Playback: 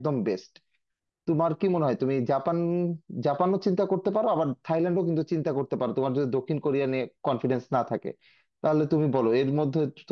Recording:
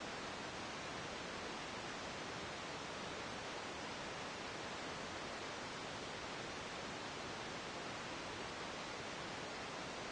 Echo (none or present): none